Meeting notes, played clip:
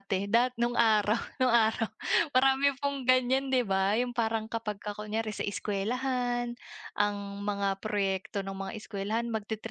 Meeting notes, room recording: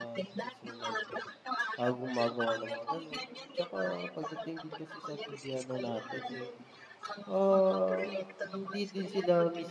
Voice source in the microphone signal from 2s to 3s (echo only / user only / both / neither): both